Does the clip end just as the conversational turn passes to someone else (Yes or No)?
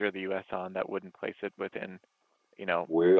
No